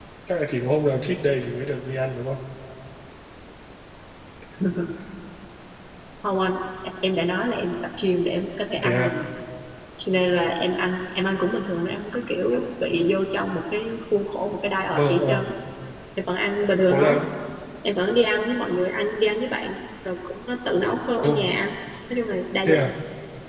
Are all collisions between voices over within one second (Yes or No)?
Yes